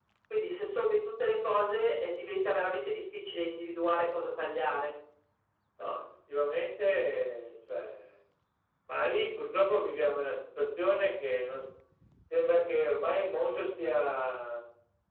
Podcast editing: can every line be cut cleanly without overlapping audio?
Yes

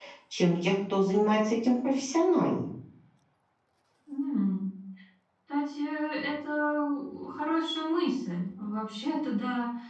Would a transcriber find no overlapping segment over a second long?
Yes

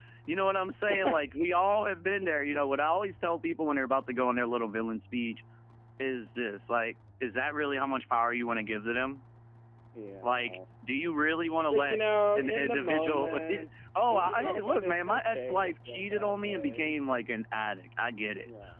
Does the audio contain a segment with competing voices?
Yes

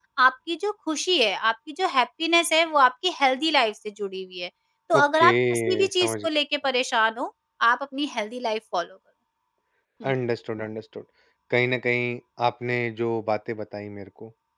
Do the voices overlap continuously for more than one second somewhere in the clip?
Yes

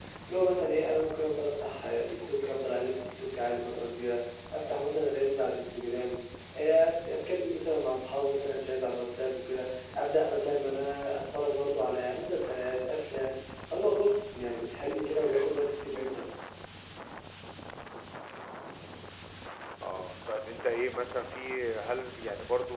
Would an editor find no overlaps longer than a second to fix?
Yes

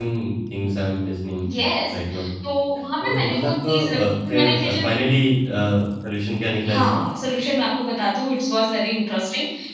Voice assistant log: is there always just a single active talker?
No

